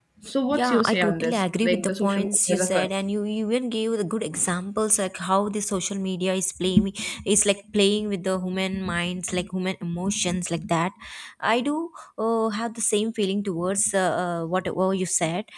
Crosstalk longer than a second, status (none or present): present